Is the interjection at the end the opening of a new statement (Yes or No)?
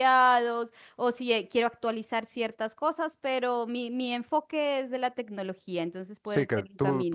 Yes